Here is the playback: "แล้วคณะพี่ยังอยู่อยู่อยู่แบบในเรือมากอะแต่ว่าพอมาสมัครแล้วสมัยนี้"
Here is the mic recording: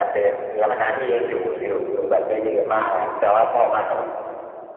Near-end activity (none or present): none